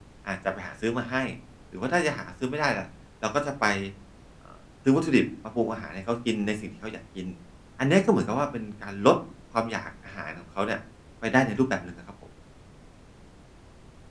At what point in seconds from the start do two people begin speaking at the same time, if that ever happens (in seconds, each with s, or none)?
none